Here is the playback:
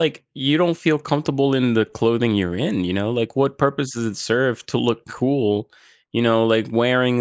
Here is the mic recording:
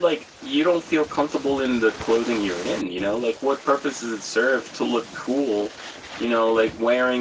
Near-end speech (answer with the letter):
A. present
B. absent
B